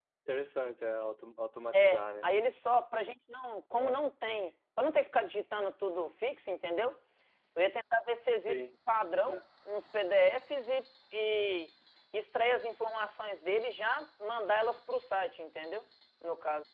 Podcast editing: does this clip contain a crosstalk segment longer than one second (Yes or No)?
No